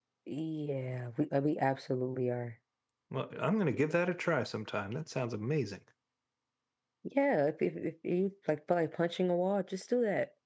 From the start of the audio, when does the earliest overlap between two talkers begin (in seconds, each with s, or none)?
none